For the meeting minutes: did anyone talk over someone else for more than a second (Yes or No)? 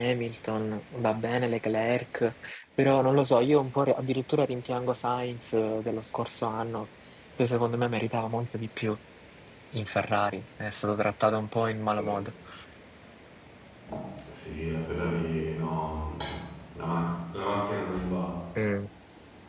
No